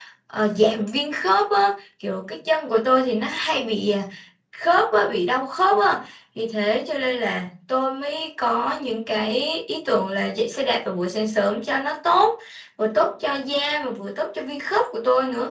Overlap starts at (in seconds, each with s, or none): none